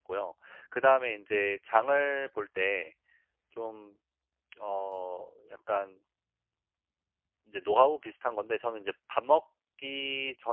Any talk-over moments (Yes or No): No